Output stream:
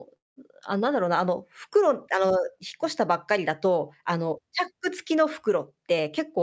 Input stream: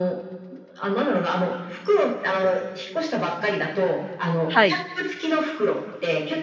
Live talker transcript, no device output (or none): はい。